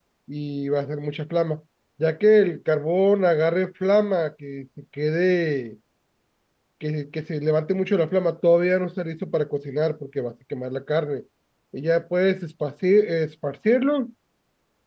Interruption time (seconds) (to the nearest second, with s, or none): none